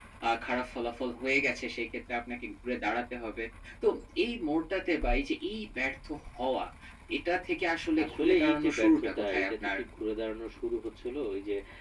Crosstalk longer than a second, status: present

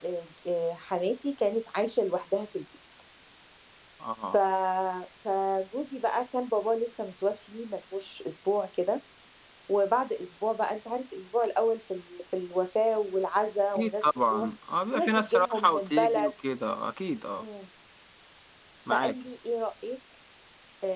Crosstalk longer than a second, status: present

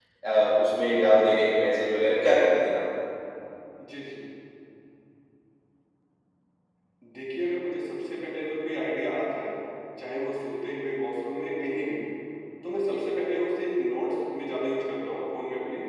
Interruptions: none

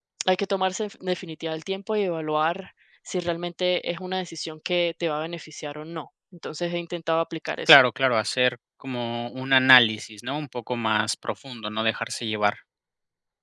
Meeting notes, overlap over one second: none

